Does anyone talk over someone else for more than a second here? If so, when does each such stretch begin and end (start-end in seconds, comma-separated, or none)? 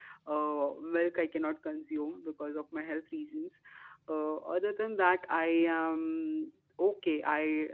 none